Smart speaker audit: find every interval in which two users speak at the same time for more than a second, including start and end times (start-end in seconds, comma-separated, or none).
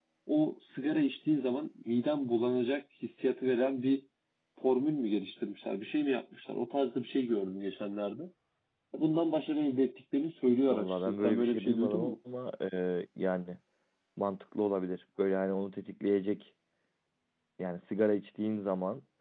10.7-12.1